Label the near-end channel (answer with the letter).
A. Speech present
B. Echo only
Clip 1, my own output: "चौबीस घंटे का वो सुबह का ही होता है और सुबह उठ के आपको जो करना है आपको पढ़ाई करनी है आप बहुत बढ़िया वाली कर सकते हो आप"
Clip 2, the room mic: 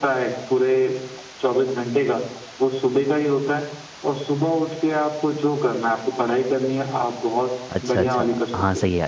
A